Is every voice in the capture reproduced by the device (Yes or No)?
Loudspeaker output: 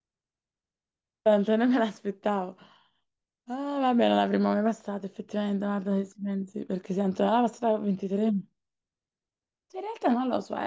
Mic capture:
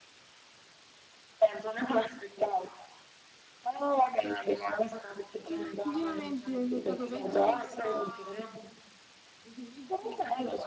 No